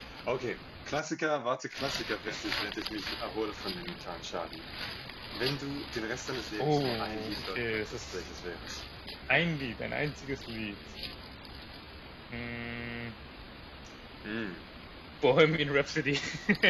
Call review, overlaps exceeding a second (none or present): present